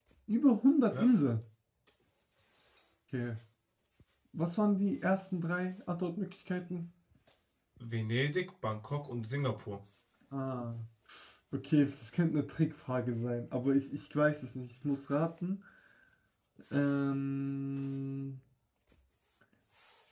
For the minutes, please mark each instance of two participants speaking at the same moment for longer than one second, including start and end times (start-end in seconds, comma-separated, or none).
none